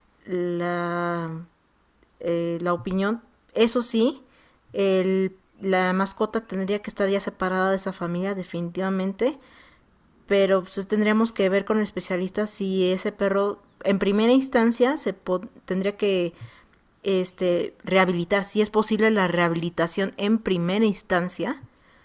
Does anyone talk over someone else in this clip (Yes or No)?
No